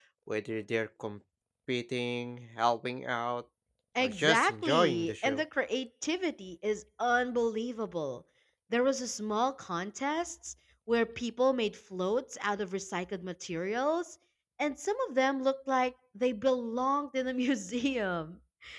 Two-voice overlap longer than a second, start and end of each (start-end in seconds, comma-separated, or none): 4.0-5.4